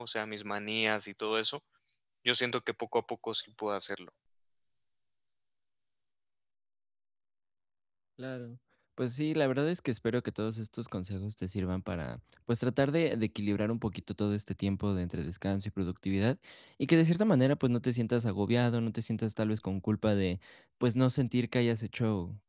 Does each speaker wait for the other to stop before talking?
Yes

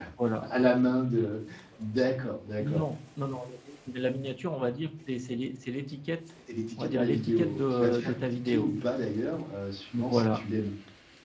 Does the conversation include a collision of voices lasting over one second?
Yes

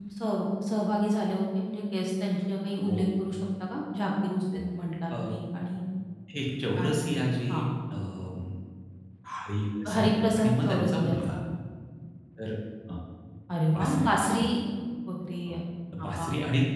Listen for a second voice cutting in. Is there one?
Yes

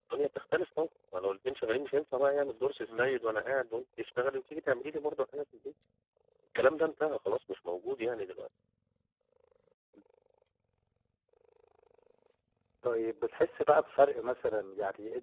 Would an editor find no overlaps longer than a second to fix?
Yes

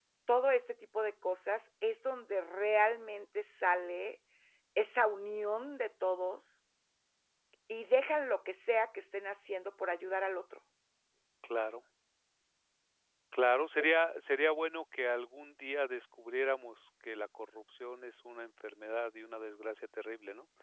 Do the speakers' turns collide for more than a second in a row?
No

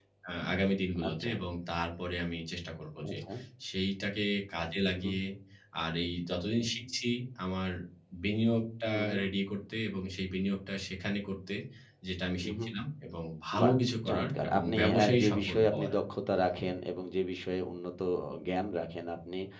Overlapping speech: Yes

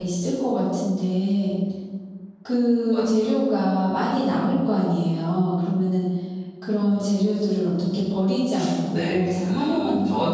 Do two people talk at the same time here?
Yes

